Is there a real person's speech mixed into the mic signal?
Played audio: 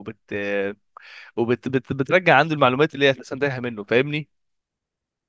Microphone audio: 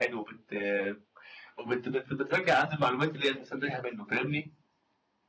No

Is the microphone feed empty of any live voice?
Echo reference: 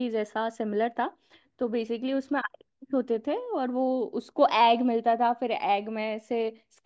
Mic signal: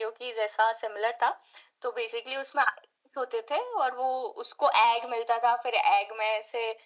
Yes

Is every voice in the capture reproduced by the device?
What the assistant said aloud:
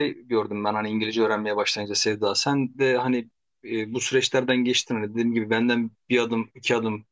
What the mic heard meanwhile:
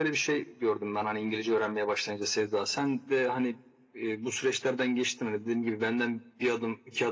Yes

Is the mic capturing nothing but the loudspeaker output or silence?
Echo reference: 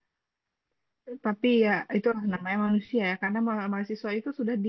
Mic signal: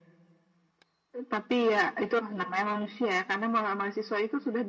Yes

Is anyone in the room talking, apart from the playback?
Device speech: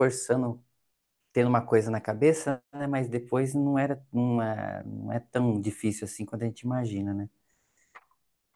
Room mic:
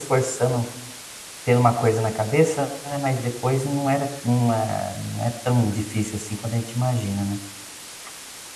No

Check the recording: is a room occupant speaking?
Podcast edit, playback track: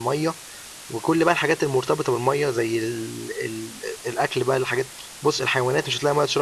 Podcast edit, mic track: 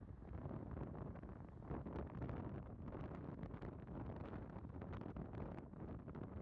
No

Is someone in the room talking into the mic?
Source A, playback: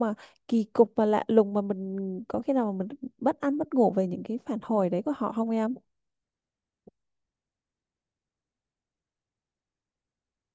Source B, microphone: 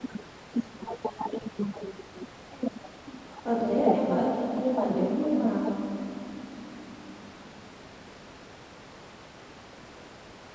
Yes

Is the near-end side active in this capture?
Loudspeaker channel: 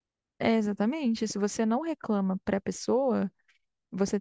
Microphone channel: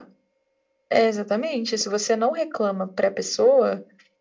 No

